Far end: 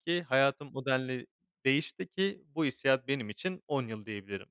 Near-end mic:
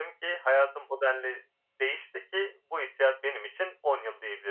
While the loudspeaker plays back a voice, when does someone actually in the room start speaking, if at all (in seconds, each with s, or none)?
none